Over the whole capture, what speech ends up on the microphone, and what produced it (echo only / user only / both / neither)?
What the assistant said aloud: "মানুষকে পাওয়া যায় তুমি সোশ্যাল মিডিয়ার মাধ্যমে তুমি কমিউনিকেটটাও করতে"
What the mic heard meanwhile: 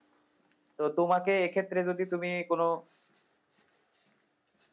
user only